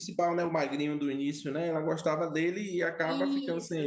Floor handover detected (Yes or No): Yes